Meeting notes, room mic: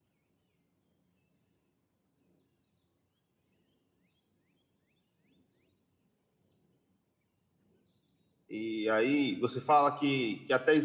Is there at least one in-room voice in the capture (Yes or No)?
Yes